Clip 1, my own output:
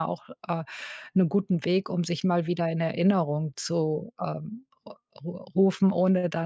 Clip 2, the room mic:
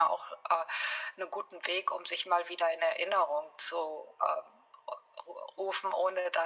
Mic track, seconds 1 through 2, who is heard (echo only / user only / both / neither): echo only